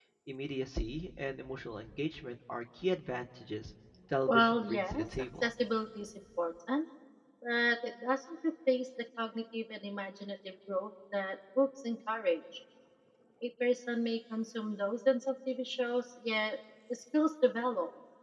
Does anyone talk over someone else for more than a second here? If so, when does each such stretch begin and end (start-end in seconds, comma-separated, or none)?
4.3-5.5